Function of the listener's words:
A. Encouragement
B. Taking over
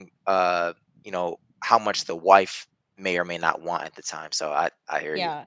B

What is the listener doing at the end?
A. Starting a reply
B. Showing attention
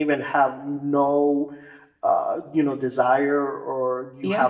B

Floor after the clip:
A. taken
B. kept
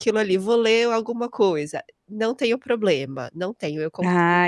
A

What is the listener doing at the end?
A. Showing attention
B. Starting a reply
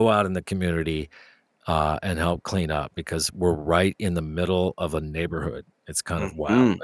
B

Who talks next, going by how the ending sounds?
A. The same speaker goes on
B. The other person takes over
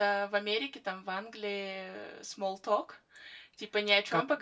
A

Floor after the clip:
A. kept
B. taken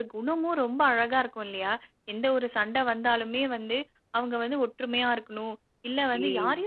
A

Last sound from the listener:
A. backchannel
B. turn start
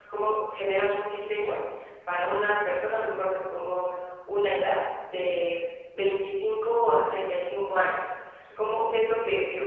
A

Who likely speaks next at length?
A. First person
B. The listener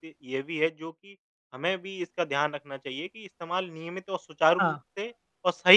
A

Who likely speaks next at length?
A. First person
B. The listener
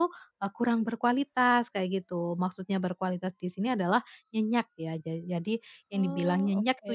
A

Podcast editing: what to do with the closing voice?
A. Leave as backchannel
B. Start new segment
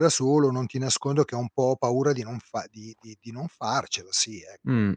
B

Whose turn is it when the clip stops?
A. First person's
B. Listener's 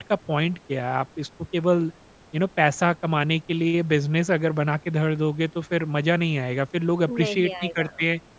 A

